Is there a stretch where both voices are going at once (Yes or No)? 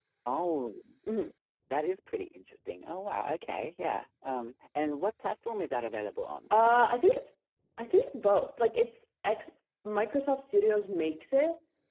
No